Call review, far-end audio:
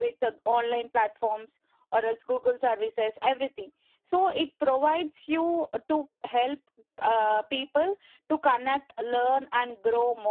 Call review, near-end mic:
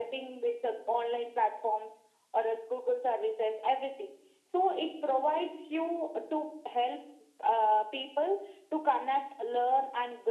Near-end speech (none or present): none